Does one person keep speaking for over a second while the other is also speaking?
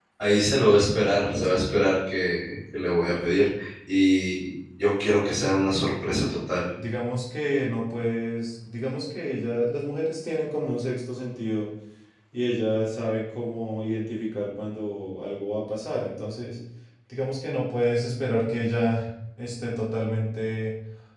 No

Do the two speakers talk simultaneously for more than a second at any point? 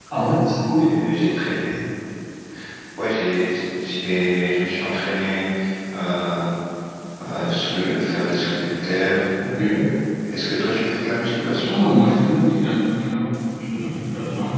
No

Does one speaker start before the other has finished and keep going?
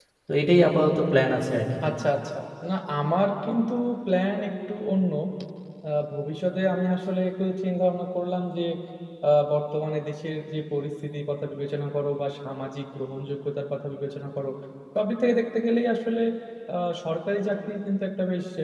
No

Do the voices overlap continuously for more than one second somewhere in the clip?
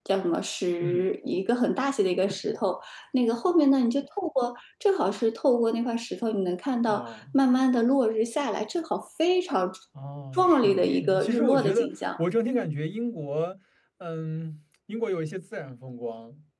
Yes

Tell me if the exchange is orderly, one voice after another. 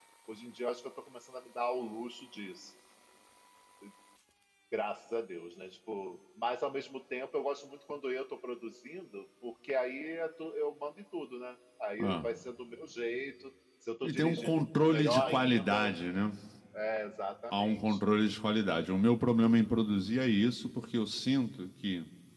No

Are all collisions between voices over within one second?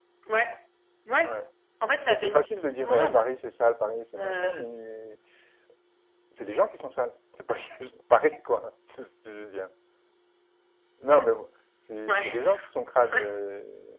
No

